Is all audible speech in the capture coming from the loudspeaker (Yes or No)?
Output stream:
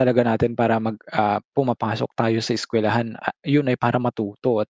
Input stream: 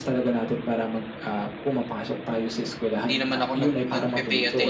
No